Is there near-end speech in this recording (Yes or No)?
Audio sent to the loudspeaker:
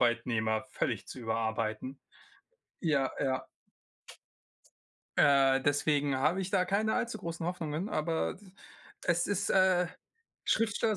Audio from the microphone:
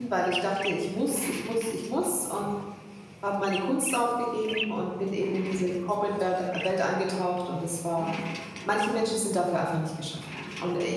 Yes